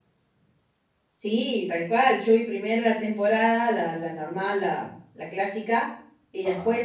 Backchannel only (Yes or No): Yes